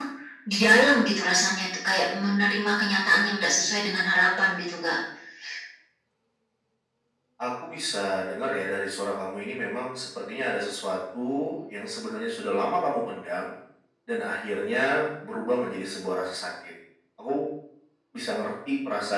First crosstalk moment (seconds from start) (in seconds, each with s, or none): none